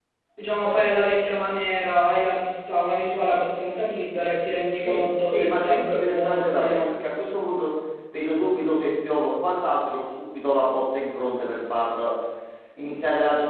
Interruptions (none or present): present